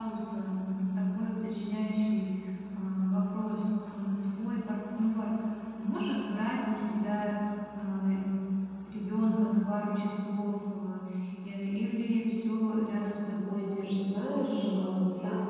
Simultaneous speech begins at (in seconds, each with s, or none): 13.5 s